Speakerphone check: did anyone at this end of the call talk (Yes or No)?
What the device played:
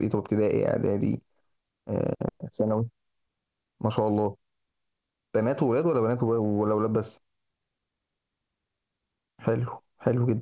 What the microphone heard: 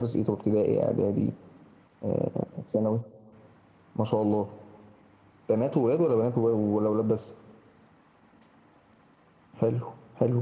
No